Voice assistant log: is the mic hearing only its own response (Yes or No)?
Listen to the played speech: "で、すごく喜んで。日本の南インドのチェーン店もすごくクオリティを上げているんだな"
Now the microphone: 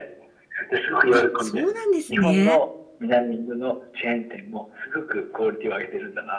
No